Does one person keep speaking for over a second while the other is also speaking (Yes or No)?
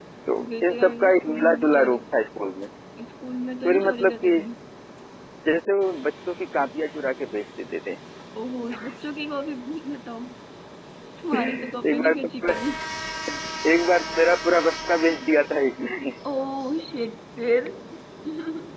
Yes